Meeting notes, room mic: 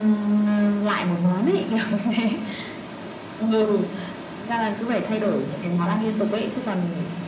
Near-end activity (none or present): none